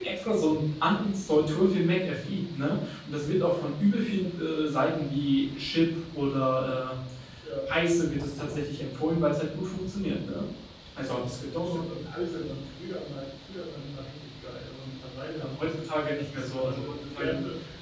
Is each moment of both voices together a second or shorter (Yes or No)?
No